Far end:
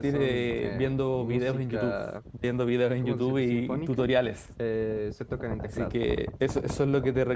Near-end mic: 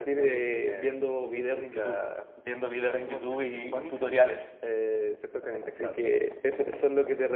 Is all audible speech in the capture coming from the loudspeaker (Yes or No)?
Yes